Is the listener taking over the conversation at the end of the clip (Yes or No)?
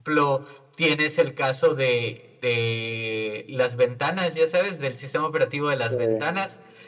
No